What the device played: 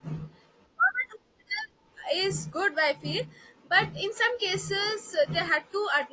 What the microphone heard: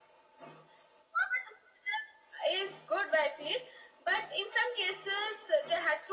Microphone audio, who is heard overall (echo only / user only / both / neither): echo only